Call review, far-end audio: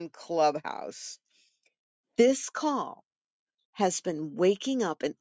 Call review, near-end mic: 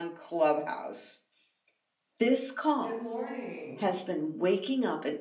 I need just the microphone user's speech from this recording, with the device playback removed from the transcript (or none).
Good morning,